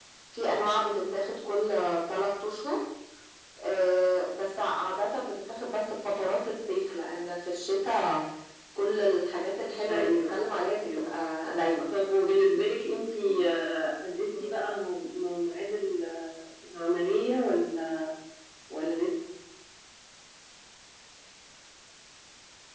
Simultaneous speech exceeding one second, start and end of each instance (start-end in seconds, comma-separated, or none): 9.9-11.1